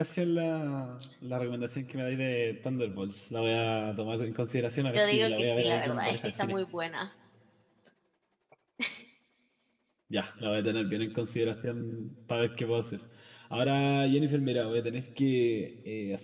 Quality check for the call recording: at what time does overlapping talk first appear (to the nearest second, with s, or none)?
5 s